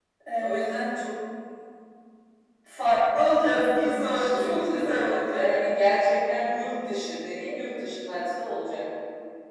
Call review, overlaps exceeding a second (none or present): present